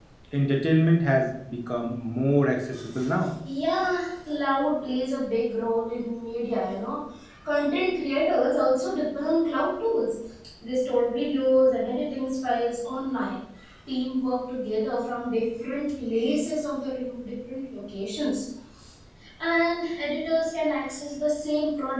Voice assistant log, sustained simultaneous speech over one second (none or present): none